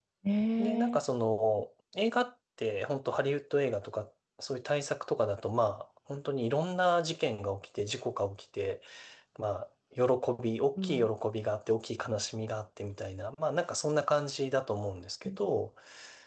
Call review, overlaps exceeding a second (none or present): none